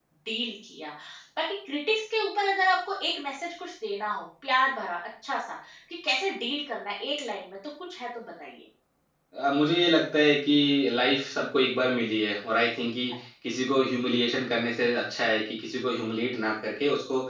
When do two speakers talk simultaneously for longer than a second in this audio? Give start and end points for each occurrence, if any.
none

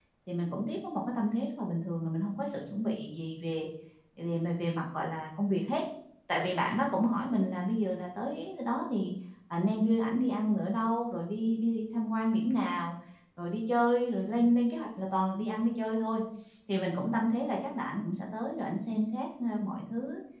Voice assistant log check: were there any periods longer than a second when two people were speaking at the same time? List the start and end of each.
none

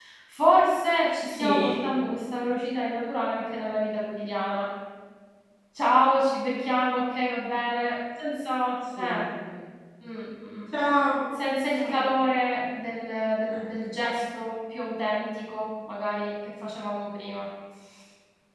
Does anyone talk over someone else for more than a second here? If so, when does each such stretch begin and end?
none

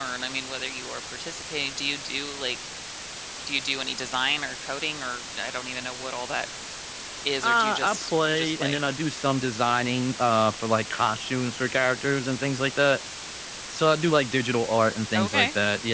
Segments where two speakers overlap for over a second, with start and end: 7.4-8.8

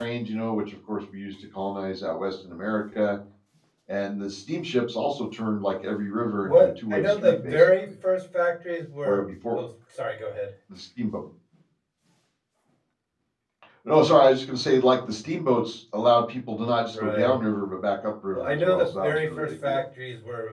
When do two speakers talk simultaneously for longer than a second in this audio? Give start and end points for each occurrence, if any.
6.4-7.8, 18.3-19.8

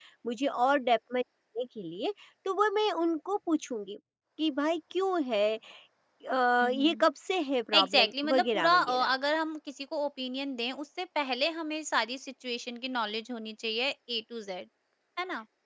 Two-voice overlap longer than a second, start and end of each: 7.8-9.1

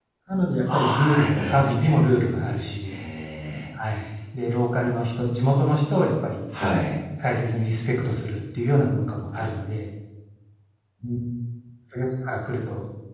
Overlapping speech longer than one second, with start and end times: 0.7-2.0

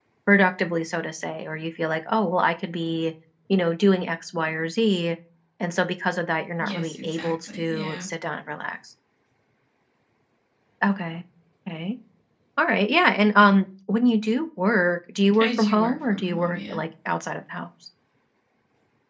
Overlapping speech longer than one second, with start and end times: 6.6-8.1, 15.4-16.8

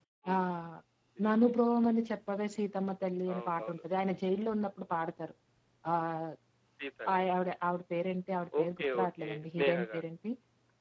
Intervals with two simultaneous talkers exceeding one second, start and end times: 8.6-10.0

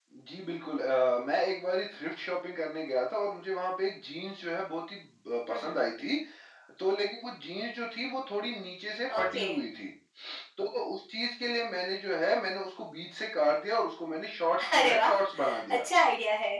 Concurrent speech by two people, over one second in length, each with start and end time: none

